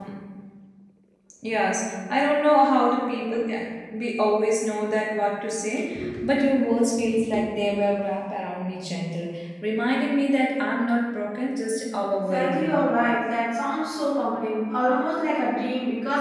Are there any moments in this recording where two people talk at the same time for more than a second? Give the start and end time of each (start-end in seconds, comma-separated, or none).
none